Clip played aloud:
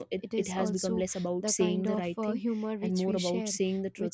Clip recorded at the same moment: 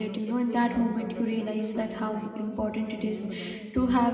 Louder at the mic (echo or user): user